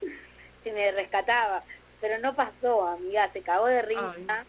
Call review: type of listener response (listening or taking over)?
listening